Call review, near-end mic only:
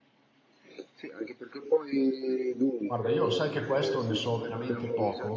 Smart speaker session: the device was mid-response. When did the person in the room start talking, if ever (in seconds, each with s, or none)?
2.9 s